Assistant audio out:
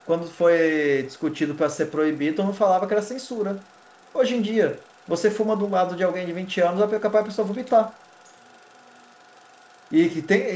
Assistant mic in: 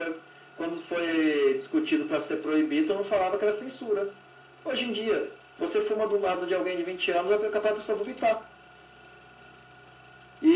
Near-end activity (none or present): none